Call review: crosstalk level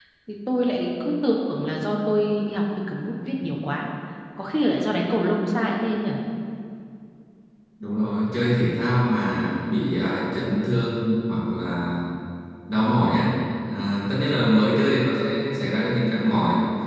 none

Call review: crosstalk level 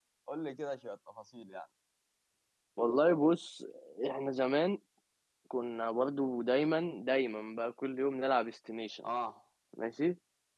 none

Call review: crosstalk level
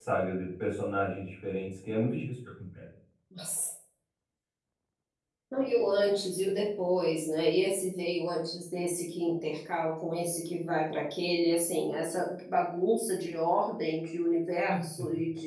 none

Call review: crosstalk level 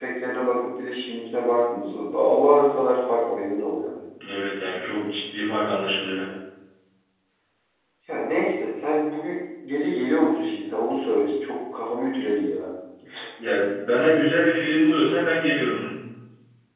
none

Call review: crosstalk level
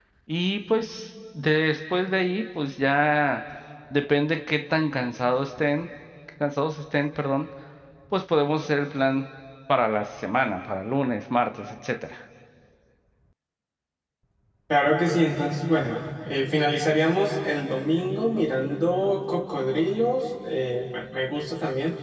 none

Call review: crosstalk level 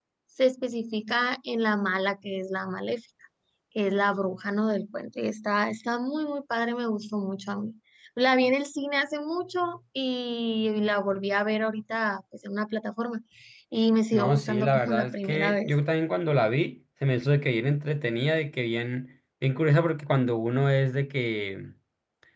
present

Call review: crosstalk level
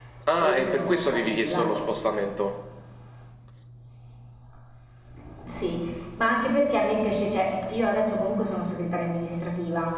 present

